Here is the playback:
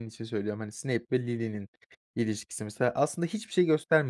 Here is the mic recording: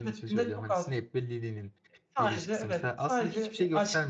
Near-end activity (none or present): present